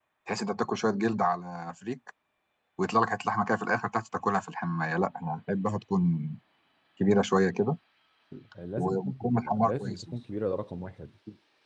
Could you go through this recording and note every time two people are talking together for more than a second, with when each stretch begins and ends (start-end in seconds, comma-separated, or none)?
8.8-10.1